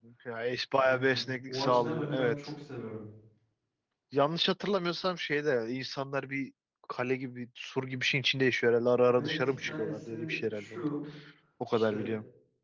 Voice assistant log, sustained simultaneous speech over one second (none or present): present